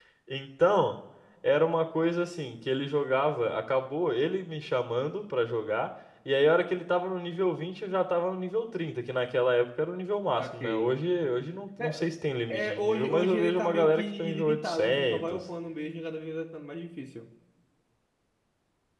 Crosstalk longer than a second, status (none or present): present